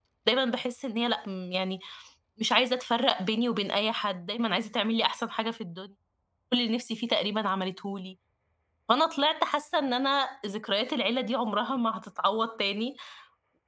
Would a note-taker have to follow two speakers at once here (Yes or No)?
No